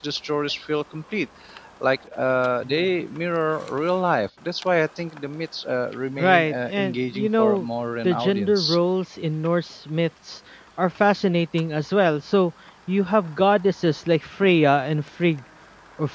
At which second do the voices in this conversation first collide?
6.2 s

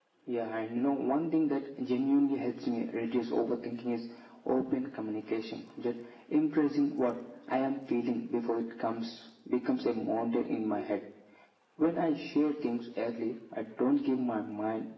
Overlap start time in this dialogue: none

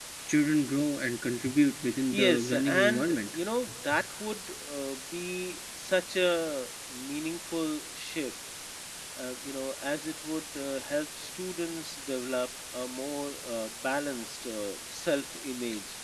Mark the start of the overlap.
2.1 s

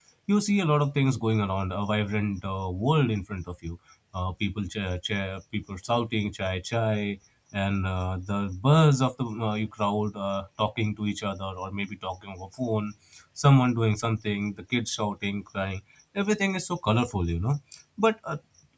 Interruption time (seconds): none

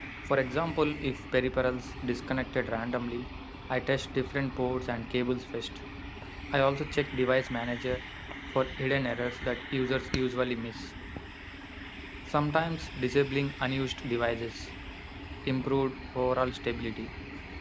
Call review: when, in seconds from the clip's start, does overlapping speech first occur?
none

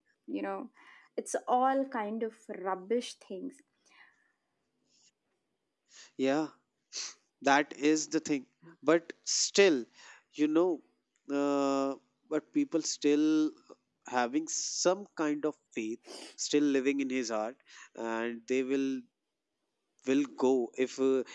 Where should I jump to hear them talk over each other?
none

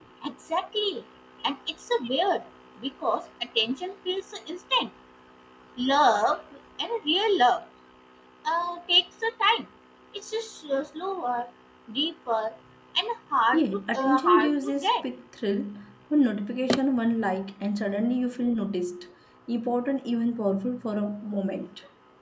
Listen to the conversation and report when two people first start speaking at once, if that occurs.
13.5 s

